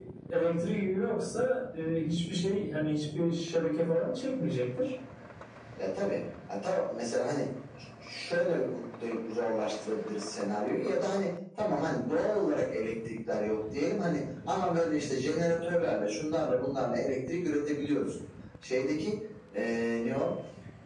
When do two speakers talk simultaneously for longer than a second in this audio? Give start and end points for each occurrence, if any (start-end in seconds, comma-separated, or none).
none